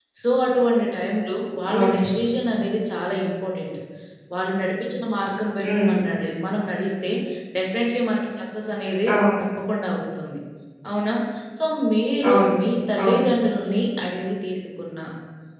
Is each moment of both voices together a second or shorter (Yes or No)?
Yes